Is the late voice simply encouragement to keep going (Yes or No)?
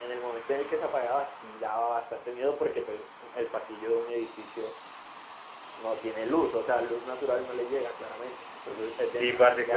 No